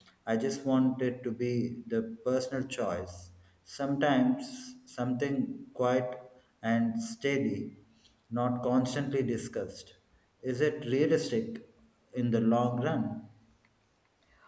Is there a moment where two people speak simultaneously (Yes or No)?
No